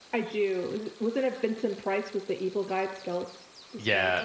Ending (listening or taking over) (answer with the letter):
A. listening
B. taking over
B